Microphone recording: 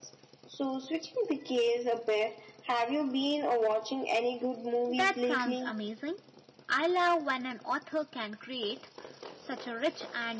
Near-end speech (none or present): present